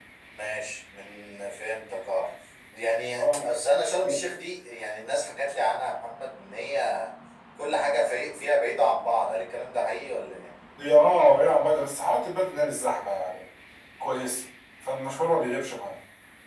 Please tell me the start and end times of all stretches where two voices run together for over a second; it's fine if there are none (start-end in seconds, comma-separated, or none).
none